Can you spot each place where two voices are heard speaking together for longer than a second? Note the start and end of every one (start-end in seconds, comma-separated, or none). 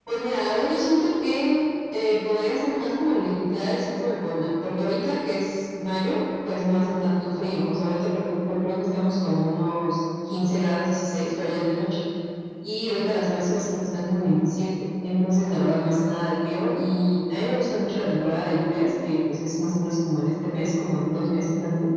none